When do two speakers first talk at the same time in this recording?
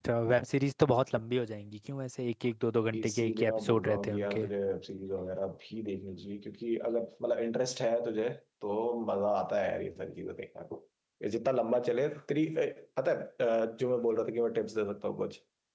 2.9 s

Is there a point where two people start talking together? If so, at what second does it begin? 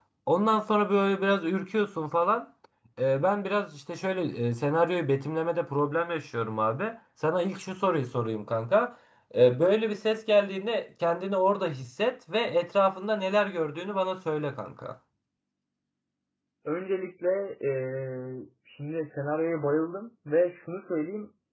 none

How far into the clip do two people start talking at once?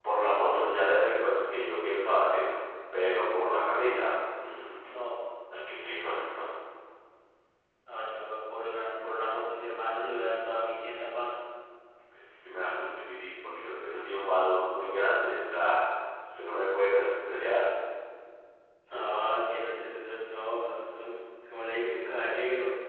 none

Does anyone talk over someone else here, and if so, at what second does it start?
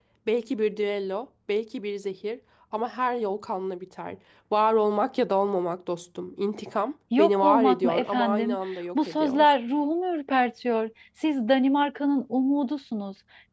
7.2 s

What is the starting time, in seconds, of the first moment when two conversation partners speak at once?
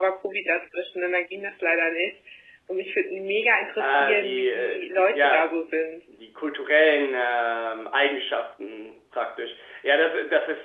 3.8 s

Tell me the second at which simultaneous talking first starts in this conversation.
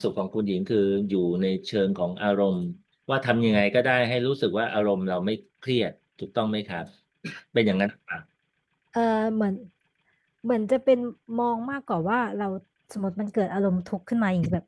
none

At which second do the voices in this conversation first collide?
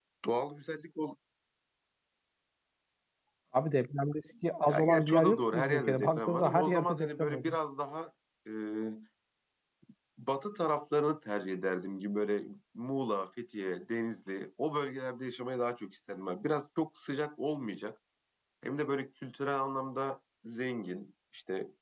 4.7 s

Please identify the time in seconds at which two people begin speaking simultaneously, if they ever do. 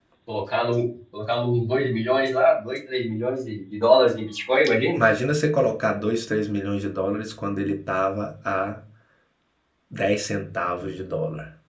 none

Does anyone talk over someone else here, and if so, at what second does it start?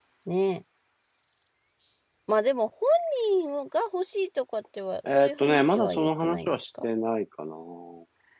5.0 s

